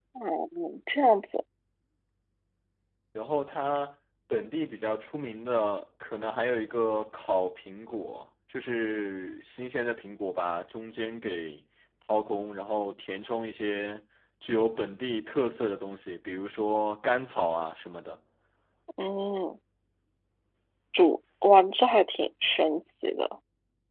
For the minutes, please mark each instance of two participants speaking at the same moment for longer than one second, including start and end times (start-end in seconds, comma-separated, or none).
none